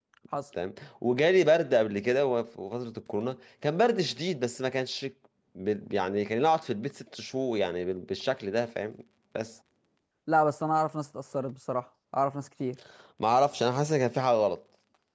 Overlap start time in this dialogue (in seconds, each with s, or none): none